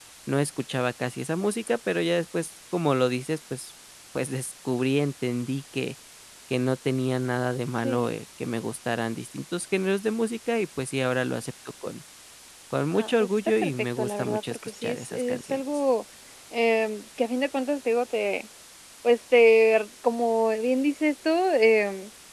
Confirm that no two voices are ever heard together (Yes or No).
No